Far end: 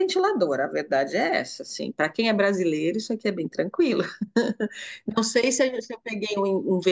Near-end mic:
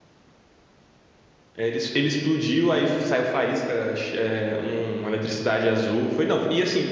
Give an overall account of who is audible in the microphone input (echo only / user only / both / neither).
user only